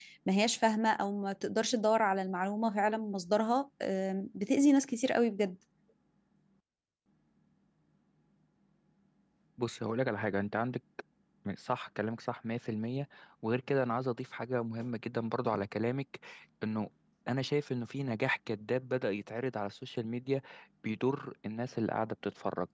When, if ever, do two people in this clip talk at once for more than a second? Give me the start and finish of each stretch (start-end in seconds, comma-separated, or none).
none